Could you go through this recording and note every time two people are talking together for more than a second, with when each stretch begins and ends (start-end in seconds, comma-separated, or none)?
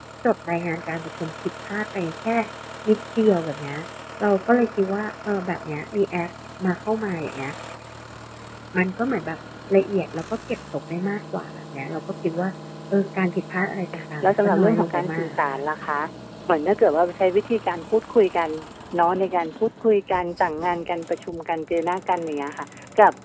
14.2-15.6